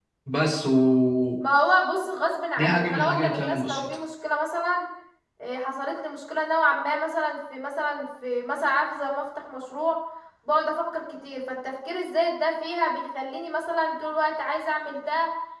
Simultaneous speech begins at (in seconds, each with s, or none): 2.6 s